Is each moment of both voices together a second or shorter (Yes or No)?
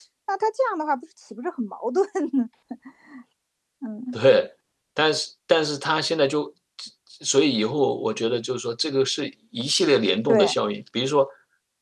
Yes